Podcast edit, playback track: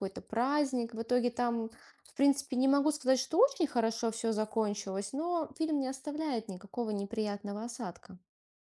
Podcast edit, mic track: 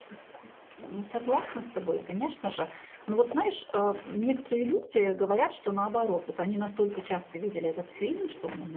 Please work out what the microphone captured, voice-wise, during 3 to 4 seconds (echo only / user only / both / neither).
user only